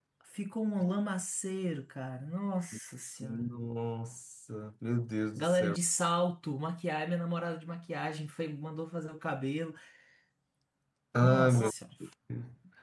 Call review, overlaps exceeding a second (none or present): none